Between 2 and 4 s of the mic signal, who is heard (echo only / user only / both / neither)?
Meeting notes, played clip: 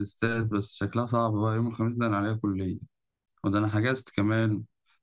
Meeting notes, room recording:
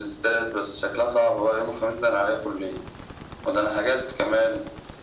echo only